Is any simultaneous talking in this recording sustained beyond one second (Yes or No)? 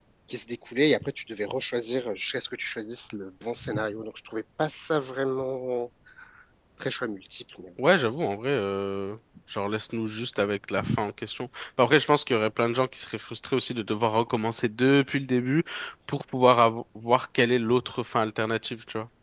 No